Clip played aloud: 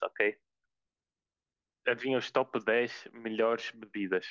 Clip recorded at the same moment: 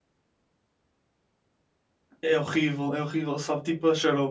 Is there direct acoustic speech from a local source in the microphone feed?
Yes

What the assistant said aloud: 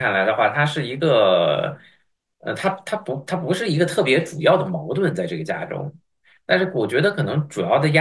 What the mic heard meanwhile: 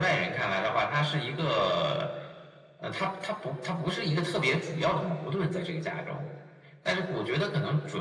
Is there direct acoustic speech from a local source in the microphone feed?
No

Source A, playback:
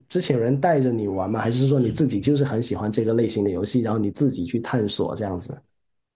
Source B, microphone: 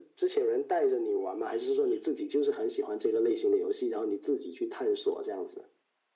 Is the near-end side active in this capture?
No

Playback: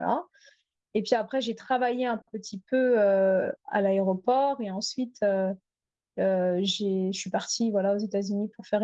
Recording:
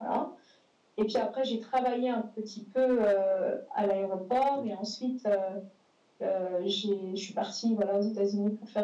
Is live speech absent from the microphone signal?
No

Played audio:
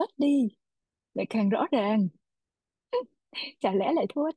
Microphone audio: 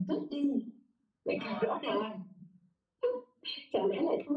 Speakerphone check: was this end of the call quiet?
No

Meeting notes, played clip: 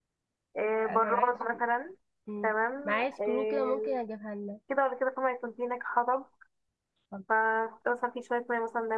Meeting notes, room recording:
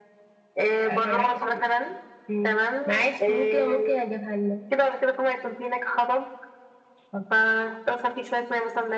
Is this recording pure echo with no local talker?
Yes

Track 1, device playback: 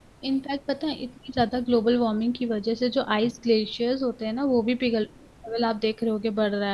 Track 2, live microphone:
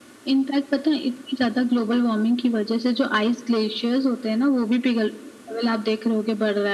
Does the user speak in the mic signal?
No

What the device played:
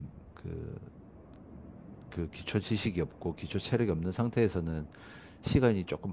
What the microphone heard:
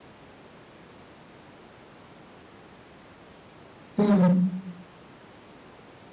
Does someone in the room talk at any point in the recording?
Yes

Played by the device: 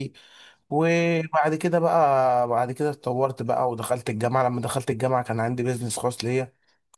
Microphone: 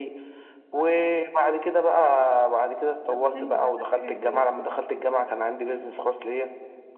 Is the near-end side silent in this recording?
No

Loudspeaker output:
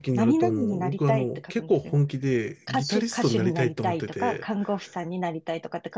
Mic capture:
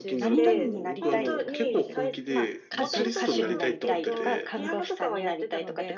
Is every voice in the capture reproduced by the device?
No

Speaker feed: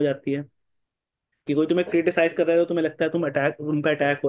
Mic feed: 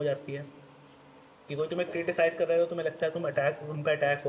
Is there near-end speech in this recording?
No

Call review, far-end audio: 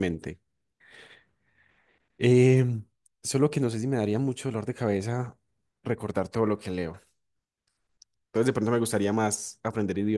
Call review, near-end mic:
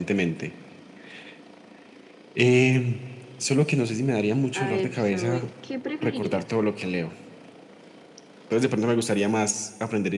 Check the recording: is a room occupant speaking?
Yes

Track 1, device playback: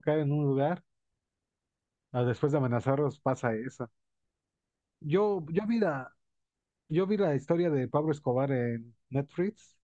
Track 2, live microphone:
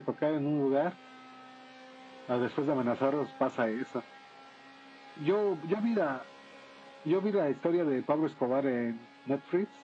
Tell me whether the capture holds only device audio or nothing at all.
Yes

